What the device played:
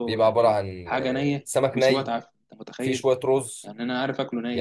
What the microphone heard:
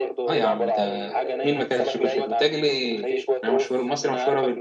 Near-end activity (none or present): present